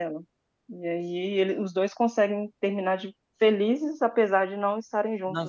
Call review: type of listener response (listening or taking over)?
taking over